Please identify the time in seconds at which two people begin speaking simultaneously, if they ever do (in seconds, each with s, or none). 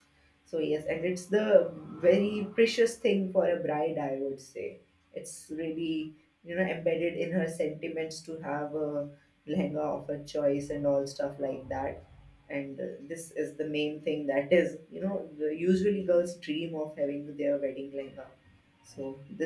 none